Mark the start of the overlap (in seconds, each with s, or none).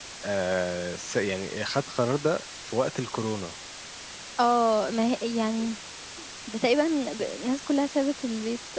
none